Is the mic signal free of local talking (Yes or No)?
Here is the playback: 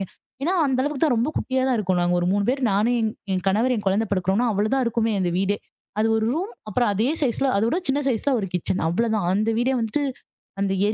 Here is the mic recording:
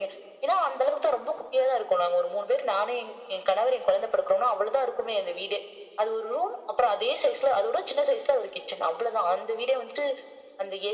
Yes